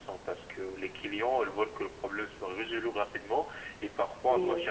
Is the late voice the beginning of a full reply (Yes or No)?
No